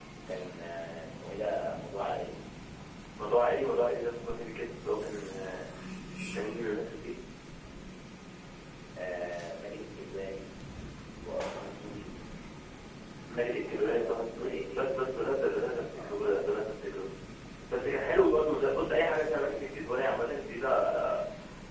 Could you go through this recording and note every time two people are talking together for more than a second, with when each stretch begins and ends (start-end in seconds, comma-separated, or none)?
13.6-15.1